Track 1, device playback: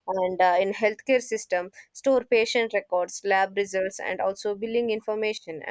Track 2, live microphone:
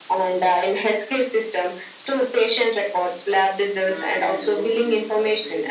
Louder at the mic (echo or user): echo